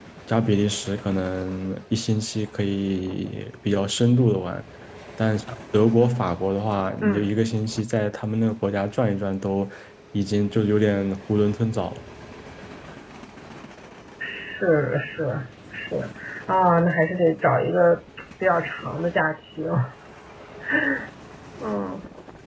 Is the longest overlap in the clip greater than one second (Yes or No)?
No